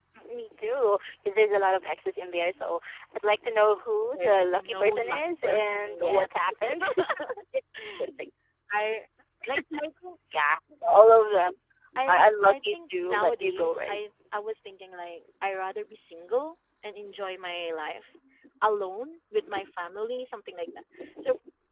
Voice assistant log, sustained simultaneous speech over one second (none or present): present